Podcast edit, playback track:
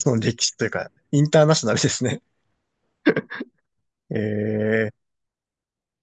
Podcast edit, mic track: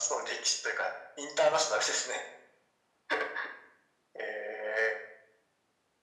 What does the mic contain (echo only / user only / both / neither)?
echo only